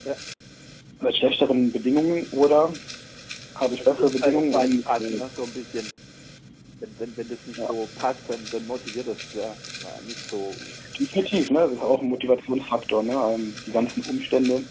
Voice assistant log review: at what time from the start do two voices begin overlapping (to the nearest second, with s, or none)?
4 s